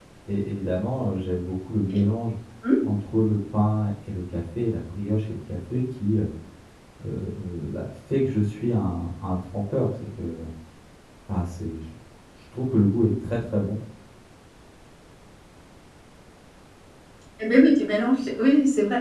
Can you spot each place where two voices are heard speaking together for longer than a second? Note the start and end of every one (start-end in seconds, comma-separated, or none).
none